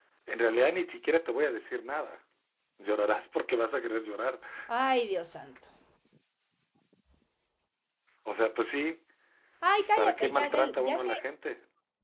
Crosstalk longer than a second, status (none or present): present